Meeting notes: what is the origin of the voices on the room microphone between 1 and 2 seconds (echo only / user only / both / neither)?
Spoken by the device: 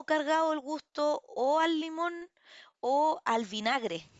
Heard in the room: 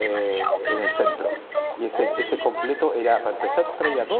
both